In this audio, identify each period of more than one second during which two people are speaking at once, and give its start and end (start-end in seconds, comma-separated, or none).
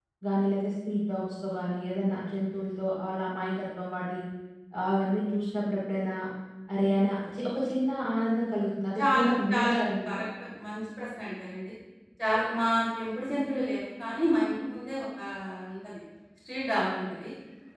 9.0-10.2